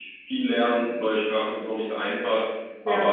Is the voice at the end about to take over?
No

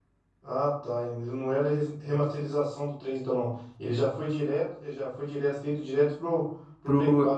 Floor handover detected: Yes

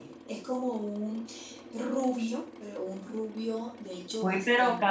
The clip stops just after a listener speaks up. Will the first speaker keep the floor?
No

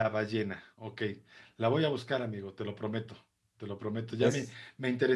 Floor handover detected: No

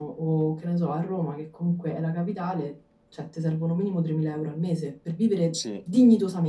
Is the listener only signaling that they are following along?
Yes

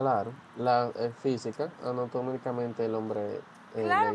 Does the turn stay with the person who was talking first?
No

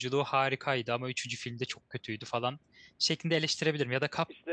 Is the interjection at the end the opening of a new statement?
No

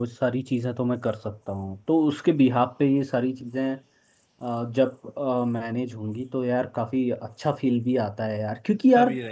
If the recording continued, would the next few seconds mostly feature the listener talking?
Yes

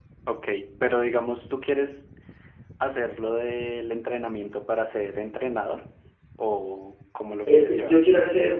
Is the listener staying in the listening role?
No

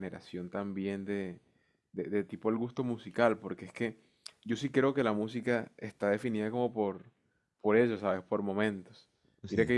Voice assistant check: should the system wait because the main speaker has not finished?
Yes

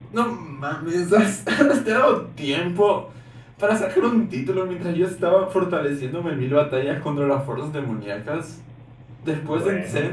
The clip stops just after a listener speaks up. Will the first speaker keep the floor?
Yes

